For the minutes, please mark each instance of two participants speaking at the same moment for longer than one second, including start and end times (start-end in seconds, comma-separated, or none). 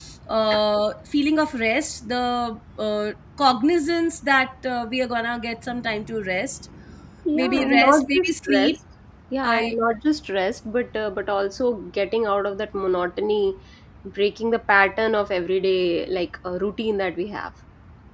7.3-8.7